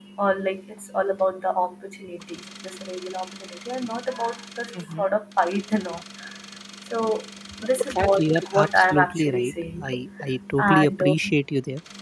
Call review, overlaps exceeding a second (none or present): present